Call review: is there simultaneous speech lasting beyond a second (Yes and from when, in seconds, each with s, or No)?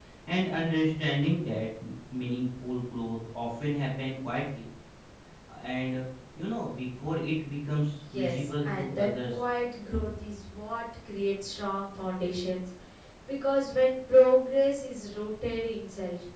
Yes, from 8.1 s